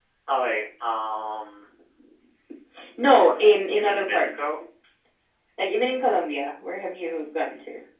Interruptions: present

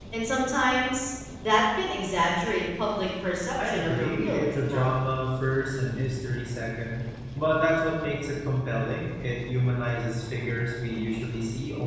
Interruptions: present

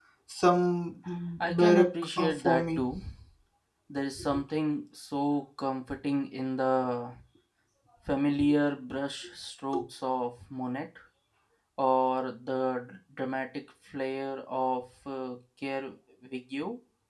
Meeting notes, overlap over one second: present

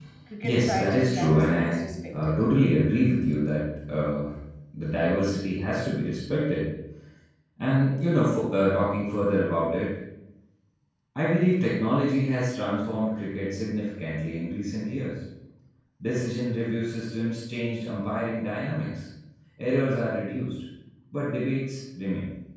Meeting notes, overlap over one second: present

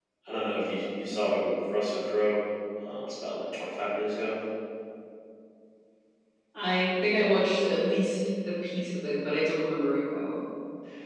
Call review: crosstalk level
none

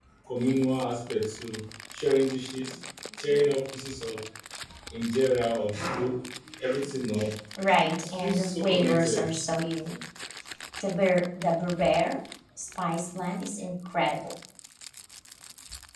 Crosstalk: present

